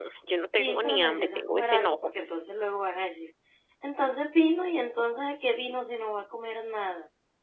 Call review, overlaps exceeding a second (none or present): present